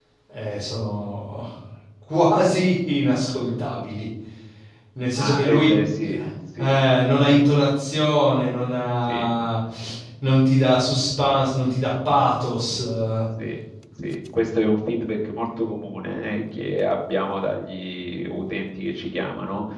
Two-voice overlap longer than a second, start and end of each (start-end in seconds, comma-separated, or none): none